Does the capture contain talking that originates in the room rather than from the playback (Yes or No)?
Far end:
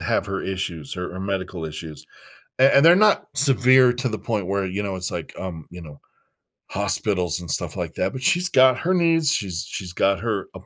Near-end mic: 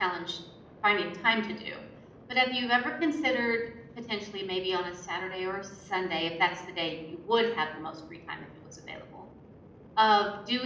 Yes